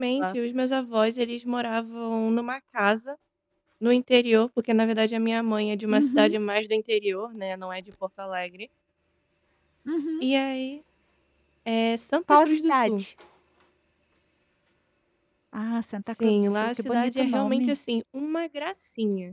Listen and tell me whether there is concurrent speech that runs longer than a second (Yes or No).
Yes